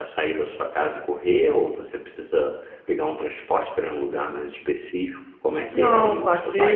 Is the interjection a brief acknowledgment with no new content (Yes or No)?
No